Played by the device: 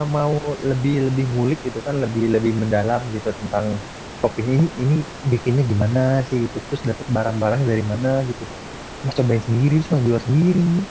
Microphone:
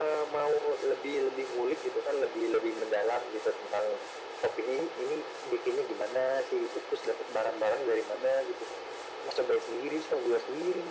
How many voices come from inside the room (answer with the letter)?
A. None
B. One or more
A